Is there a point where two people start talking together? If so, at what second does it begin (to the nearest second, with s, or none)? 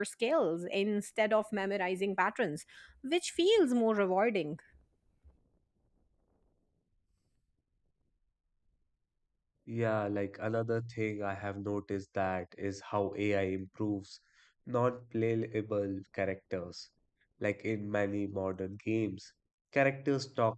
none